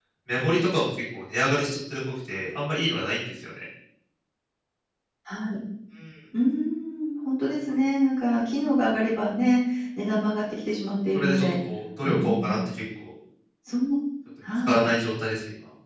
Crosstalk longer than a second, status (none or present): none